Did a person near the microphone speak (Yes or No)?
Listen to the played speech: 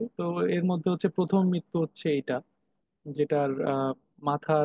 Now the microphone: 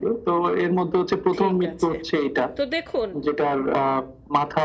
Yes